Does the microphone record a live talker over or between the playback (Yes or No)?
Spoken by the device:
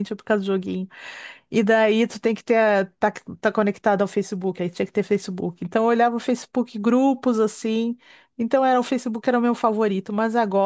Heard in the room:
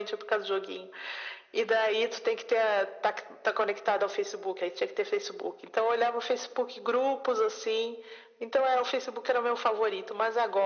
No